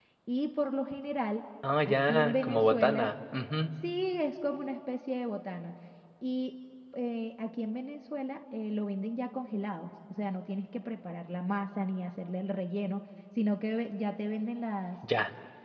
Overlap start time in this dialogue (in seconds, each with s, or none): 1.9 s